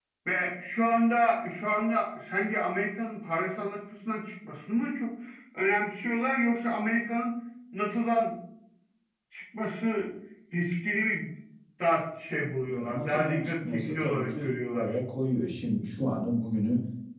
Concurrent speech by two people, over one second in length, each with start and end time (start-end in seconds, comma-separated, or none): 12.7-15.0